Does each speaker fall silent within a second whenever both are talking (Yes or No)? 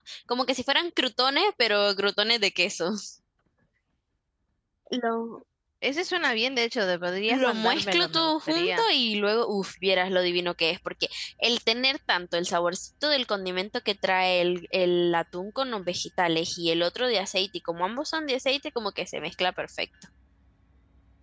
No